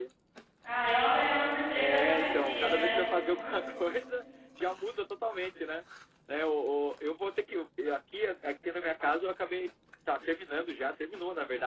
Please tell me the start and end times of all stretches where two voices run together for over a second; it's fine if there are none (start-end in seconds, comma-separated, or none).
1.8-3.0